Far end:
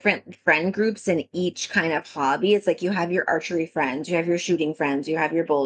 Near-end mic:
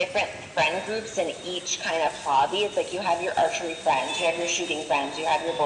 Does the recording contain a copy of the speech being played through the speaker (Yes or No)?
Yes